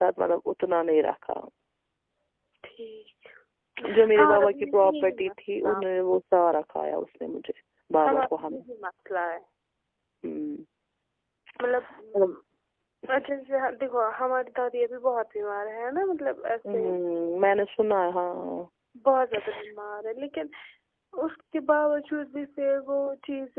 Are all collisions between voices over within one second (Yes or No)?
No